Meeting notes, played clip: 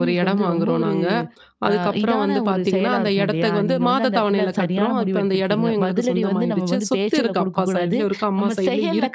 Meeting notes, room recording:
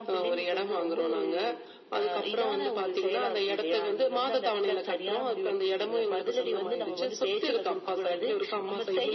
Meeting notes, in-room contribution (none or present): none